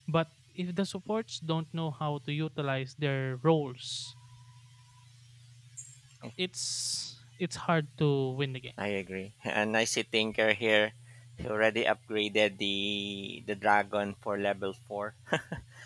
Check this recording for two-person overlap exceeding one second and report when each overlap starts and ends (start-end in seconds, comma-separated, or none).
none